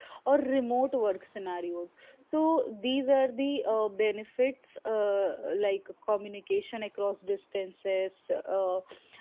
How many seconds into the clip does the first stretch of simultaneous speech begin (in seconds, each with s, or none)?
none